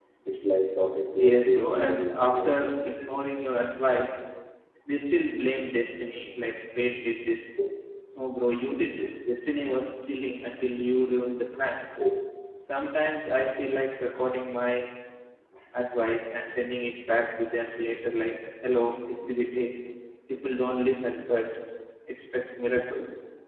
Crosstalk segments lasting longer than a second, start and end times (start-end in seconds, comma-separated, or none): 1.2-2.7